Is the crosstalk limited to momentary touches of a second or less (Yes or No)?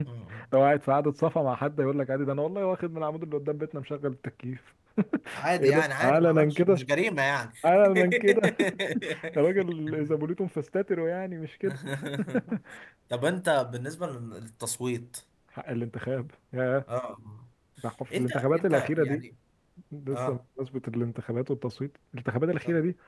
No